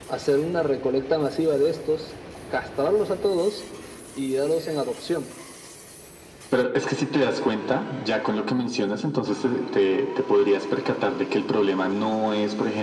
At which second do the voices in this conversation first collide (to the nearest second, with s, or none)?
none